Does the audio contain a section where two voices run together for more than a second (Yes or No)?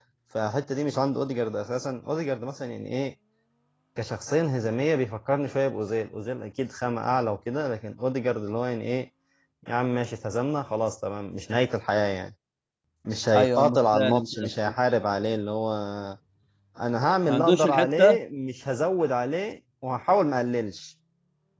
Yes